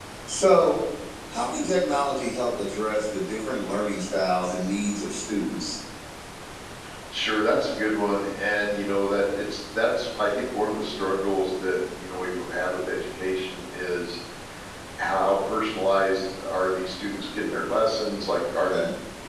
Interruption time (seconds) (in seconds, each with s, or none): none